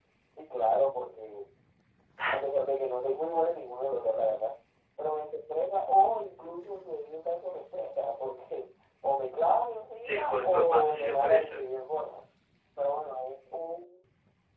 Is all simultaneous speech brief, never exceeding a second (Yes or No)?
No